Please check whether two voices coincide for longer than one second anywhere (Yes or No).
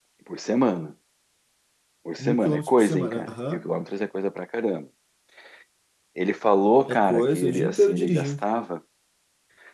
Yes